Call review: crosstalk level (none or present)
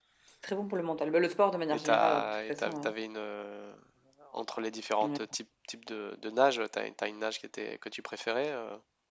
present